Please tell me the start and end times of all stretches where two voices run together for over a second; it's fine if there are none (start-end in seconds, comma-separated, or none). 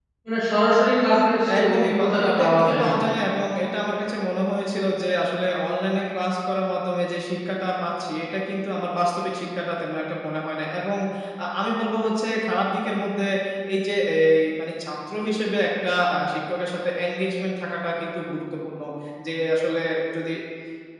1.6-3.1